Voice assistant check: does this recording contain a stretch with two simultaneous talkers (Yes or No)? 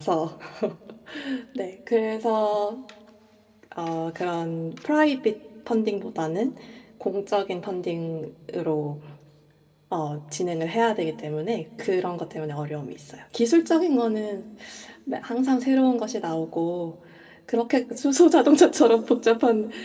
No